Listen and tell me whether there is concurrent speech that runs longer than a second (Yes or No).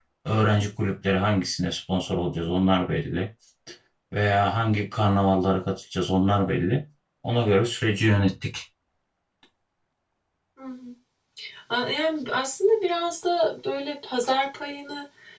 No